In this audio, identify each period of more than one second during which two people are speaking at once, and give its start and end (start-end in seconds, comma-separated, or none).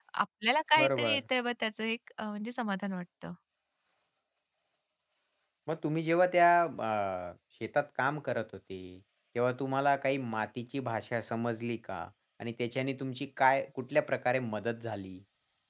none